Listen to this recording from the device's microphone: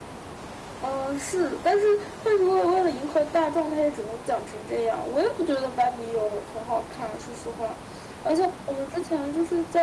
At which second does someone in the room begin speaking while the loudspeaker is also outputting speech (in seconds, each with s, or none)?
none